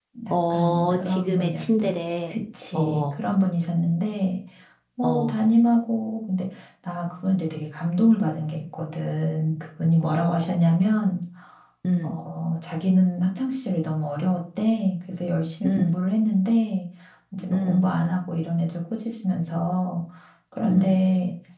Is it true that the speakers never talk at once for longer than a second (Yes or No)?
No